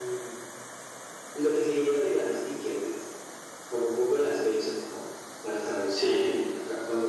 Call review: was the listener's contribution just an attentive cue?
Yes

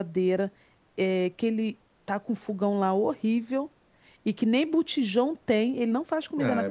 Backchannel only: No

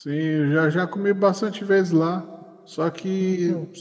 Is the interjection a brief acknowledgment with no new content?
Yes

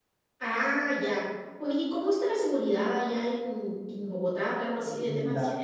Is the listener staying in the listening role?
No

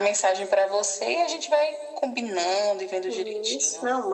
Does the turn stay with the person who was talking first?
No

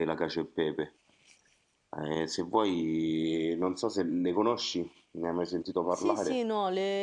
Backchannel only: No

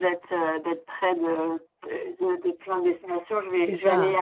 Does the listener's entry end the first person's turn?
No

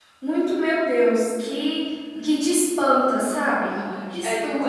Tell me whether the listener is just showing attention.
No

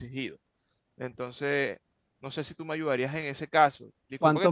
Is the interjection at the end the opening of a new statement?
No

